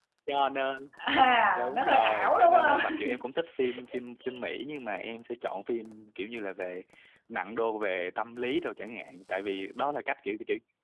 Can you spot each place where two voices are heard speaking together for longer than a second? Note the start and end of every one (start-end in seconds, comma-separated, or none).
1.6-3.0